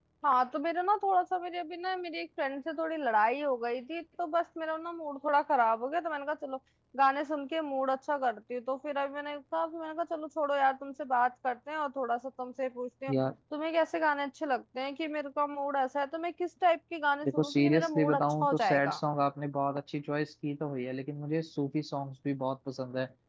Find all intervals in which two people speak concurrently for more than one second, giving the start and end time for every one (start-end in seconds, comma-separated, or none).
17.2-19.0